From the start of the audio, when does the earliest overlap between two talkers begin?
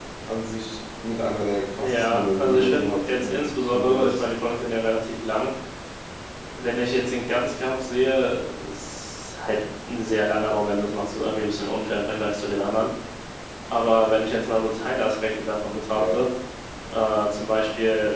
1.8 s

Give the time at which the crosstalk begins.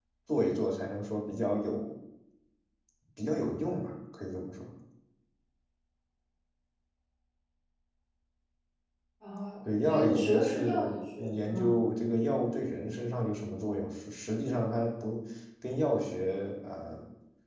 9.8 s

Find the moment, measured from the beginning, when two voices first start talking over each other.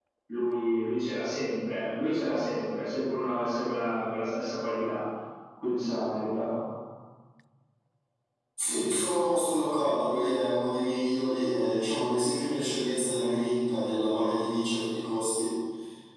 none

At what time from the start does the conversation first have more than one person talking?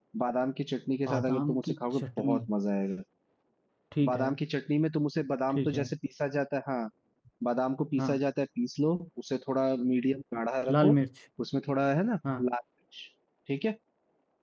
1.1 s

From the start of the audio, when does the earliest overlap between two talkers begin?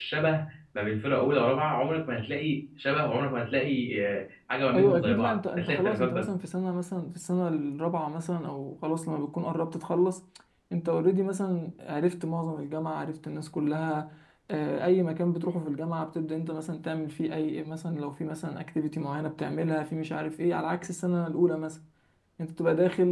4.7 s

